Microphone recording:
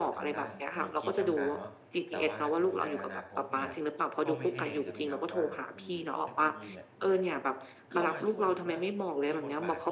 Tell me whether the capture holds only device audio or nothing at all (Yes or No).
No